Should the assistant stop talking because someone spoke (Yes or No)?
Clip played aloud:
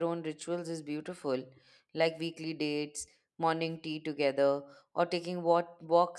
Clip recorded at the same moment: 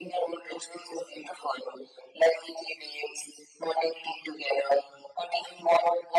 No